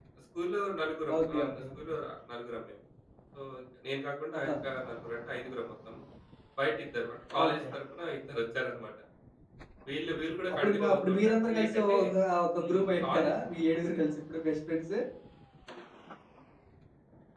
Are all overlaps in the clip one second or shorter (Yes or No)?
No